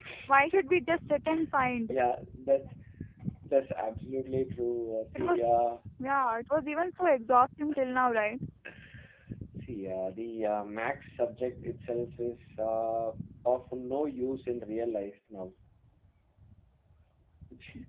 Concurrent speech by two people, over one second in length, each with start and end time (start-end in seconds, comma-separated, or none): none